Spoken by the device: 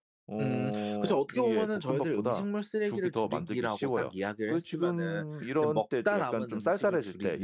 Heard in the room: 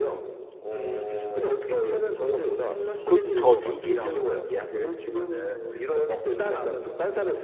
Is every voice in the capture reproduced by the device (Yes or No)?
No